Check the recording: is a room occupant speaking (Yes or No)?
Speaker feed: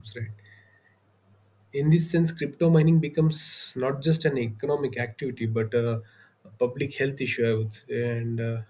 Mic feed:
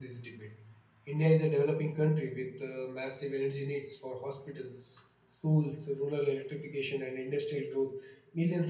Yes